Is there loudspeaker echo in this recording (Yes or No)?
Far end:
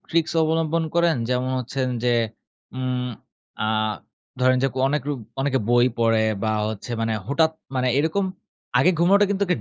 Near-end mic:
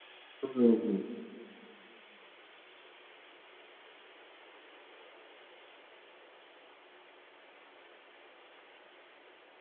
No